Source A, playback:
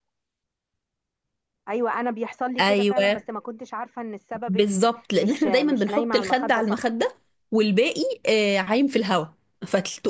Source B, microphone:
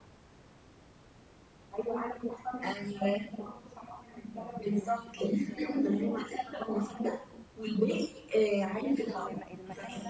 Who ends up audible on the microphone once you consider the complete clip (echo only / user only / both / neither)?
both